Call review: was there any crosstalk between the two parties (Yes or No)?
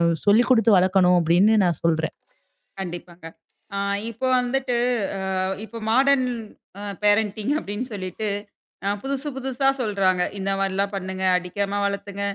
No